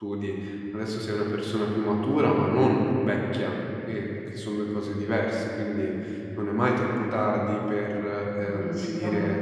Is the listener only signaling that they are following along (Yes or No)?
Yes